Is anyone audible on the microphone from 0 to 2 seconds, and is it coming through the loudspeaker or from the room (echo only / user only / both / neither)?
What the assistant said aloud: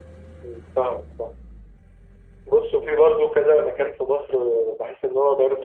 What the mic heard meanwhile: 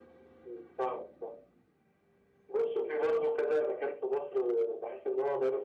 echo only